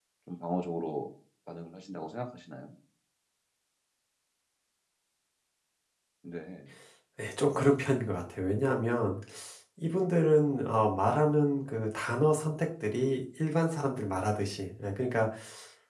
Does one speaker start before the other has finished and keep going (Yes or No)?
No